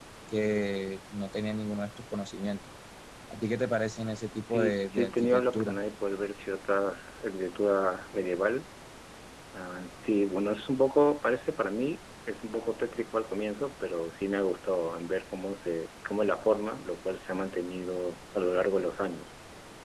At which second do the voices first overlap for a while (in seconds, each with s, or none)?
4.4 s